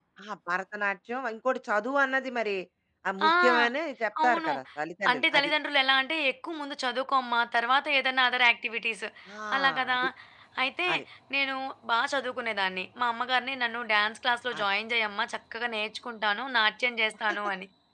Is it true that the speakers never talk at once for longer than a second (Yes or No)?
Yes